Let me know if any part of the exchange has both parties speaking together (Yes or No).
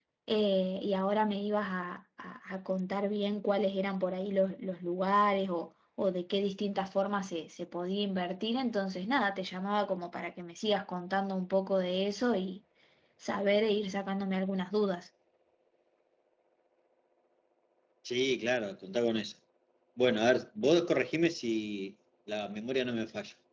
No